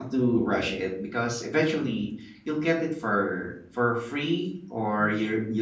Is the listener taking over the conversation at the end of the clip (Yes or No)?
No